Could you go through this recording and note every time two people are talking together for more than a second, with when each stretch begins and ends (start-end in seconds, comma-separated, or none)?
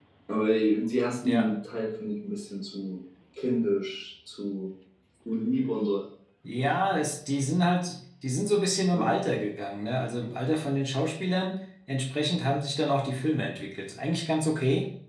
none